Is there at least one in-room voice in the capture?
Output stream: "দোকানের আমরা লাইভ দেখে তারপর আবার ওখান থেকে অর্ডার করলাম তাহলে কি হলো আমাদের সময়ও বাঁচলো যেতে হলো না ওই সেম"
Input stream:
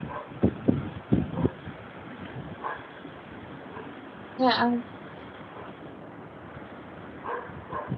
Yes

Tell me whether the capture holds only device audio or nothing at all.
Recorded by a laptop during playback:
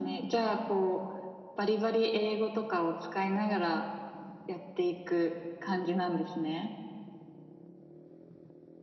Yes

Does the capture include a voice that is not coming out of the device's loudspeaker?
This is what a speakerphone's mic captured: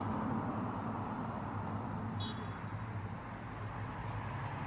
No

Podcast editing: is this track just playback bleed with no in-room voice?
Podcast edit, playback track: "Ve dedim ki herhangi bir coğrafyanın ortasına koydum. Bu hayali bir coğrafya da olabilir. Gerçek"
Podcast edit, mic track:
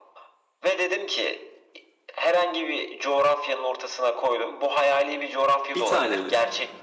No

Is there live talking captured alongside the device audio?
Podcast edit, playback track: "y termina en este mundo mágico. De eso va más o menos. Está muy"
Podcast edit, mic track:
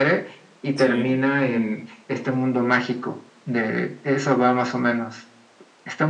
Yes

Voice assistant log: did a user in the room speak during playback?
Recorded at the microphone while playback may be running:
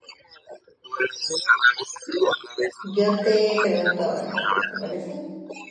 Yes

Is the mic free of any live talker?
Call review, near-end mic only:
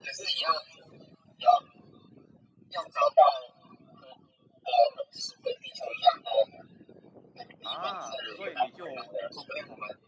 No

